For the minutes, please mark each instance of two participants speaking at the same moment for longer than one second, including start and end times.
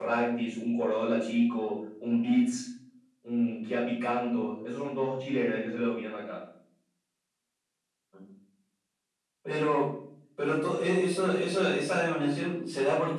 none

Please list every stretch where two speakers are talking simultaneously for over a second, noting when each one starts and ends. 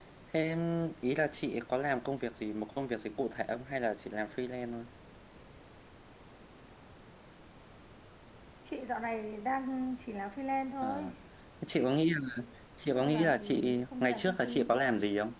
13.0-14.7

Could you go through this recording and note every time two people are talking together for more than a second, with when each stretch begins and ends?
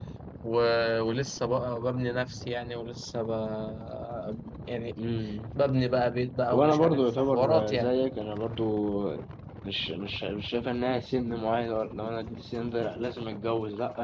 6.5-7.9

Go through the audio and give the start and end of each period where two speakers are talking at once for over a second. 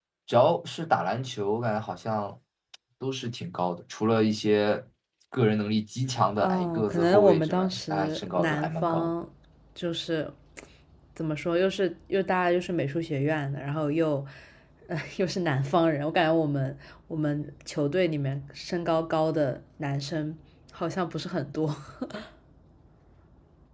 6.4-9.1

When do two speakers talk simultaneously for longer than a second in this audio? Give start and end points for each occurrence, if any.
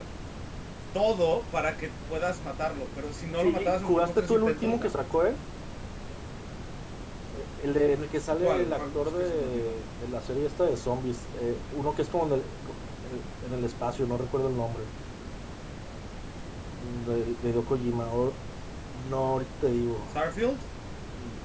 3.4-4.9, 8.4-9.8

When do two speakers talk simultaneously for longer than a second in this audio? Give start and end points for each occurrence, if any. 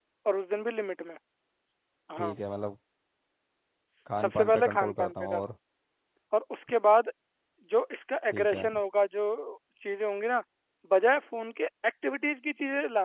4.2-5.4

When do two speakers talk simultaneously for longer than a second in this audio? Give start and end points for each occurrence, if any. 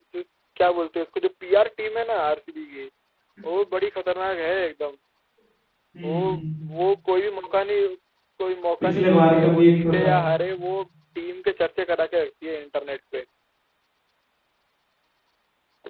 8.8-10.1

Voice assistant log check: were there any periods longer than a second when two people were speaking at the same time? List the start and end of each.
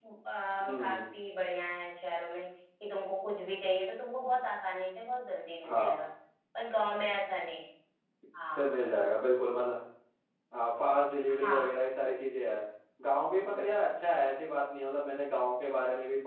none

